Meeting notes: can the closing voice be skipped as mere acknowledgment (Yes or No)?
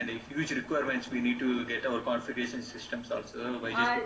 Yes